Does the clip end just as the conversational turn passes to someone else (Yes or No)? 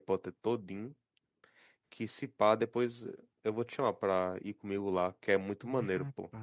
Yes